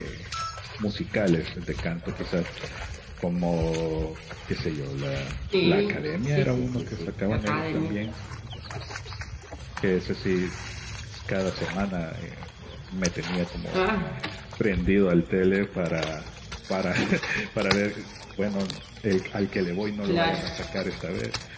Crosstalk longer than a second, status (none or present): present